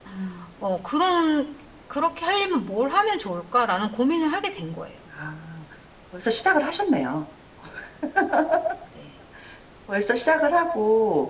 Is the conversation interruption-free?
Yes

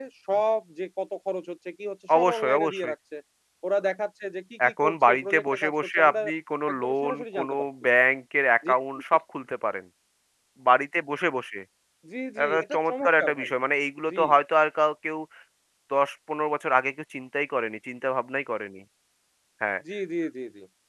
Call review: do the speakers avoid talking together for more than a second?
No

